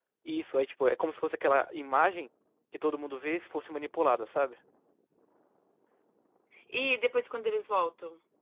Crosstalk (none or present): none